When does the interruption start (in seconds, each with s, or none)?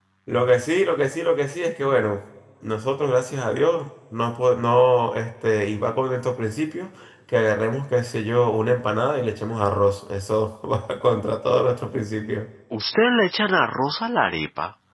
none